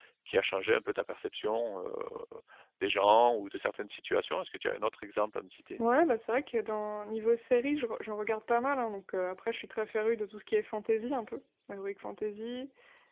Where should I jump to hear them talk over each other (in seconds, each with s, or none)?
none